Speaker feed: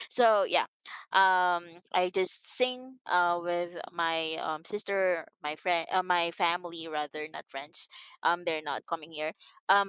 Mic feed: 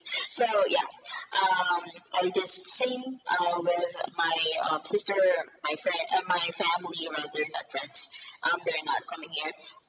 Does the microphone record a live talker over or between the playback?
No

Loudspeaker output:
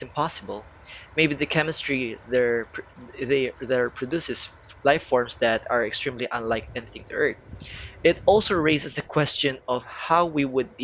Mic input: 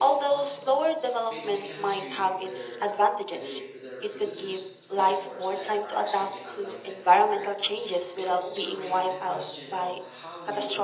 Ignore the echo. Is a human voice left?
Yes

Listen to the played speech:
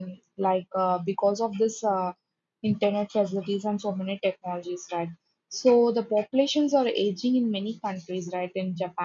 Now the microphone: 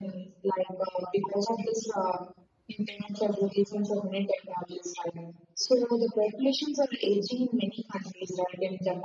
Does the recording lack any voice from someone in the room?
Yes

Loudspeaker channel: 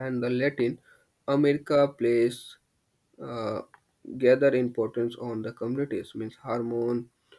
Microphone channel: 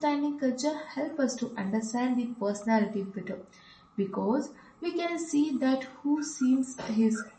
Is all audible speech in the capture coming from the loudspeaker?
No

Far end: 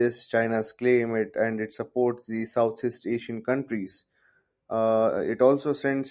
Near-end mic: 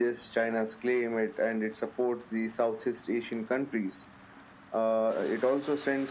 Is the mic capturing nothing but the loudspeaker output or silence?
Yes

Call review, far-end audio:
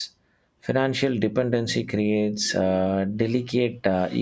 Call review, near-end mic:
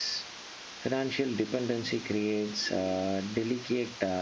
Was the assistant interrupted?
No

